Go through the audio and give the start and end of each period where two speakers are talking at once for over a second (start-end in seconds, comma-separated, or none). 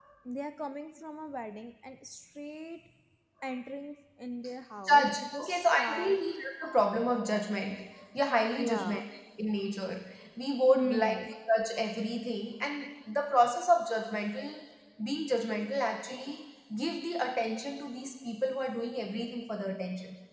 4.9-6.2